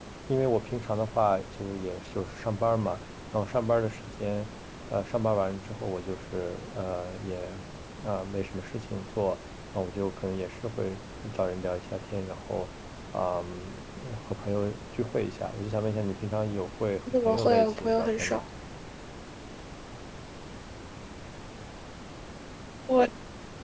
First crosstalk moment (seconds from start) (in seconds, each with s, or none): 17.1 s